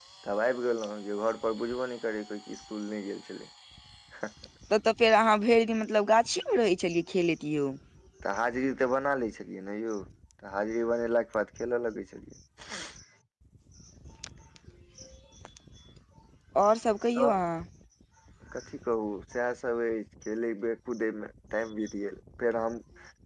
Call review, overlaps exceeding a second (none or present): none